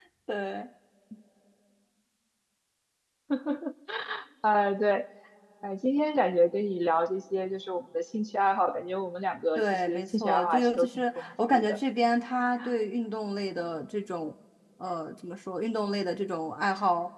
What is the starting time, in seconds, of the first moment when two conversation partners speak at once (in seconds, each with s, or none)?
9.6 s